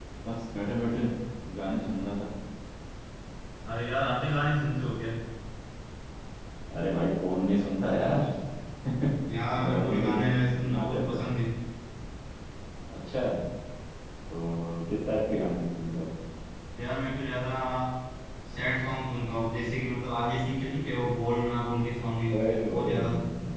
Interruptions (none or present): present